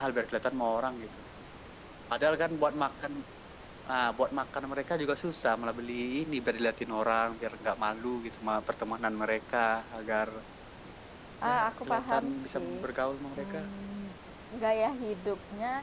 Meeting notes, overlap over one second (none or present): present